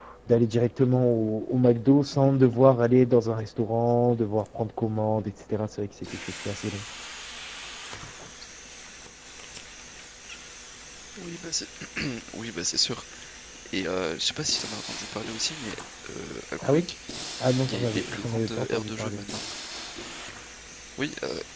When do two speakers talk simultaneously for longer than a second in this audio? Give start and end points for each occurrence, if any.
17.7-19.2

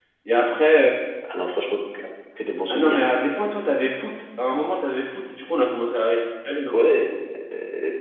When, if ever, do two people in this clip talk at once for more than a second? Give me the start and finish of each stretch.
none

